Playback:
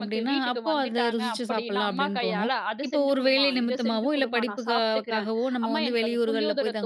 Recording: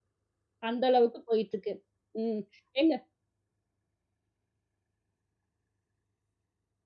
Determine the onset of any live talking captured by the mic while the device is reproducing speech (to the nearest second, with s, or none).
1 s